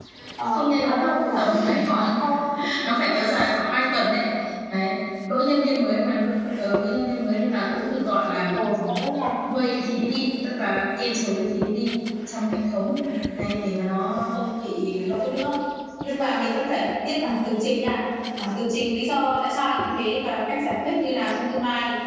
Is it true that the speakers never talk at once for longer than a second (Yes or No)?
No